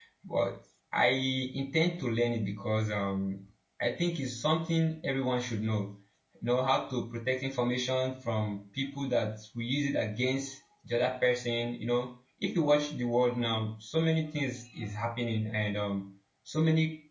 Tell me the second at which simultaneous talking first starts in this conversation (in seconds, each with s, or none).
none